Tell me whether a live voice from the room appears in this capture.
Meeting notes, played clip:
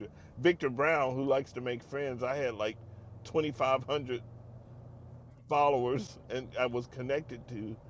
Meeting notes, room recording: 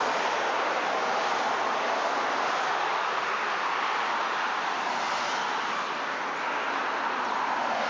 No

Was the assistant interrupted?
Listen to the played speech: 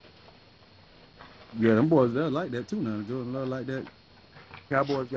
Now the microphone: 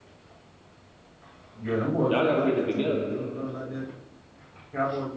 Yes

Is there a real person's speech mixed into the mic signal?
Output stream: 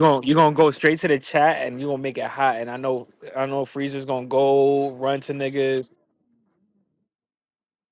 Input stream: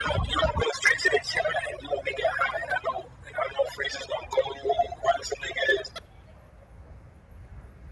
No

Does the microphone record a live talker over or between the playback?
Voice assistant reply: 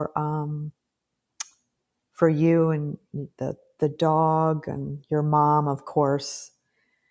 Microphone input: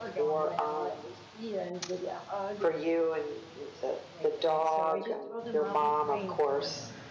Yes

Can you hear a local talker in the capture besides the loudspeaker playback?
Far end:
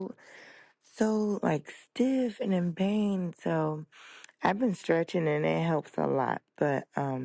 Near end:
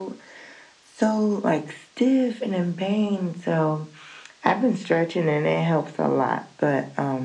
No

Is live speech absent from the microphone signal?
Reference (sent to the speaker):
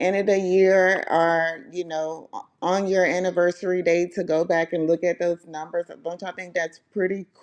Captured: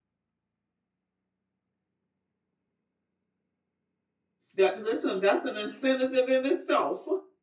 No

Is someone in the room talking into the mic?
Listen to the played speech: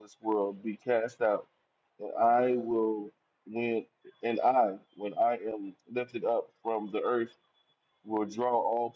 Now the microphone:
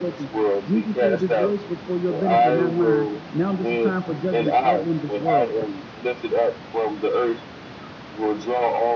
Yes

